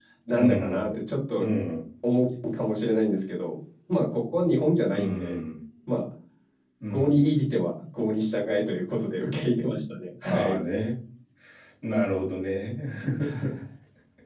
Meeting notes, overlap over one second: none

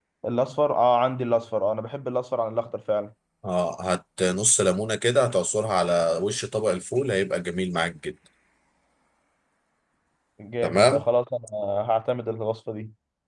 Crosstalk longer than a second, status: none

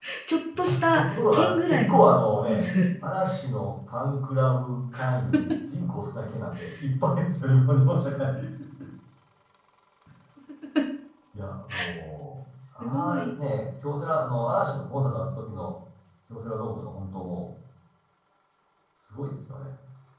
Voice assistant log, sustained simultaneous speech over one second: present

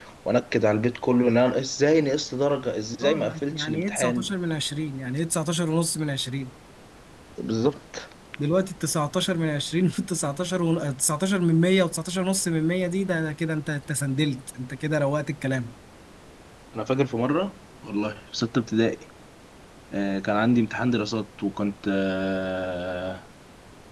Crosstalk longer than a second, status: present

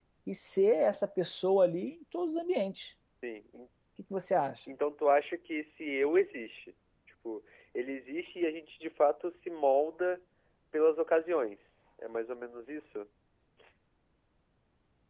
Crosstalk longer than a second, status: none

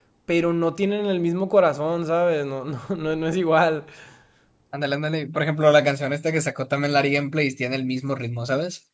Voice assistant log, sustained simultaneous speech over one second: none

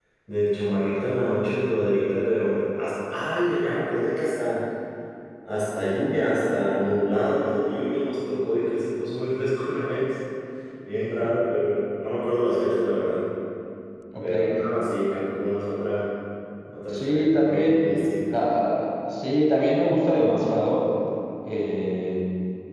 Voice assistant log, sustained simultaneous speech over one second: present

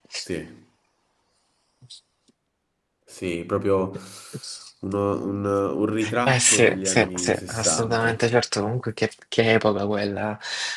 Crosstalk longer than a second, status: present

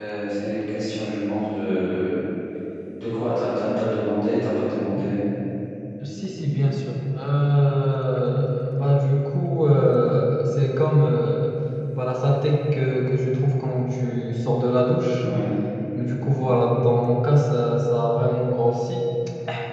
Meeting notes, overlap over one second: none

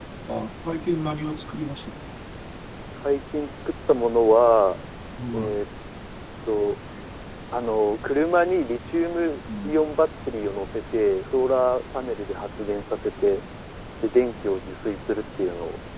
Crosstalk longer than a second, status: none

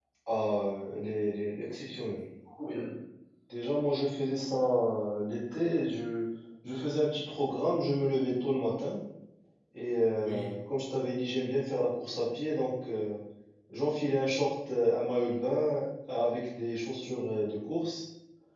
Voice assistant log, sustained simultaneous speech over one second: none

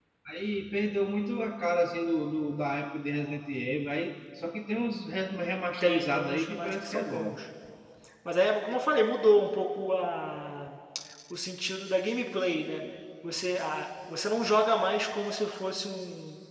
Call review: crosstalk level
present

